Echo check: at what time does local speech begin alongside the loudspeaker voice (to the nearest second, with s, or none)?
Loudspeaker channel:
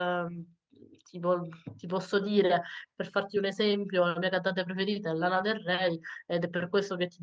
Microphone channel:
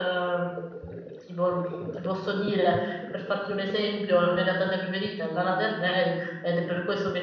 none